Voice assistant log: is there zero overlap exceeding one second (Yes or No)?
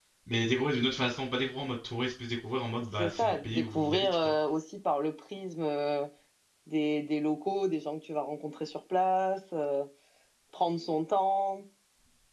No